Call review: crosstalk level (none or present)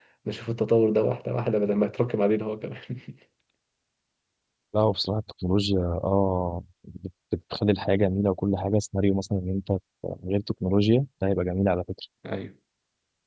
none